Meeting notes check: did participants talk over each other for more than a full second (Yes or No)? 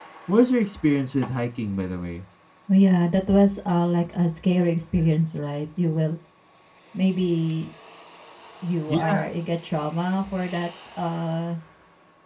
No